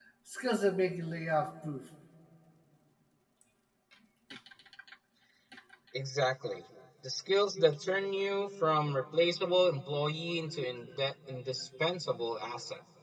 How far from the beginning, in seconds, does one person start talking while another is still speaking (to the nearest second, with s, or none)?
none